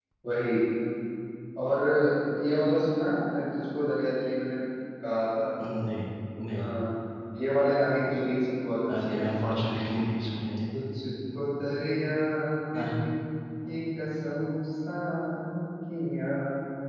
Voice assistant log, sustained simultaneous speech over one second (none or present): none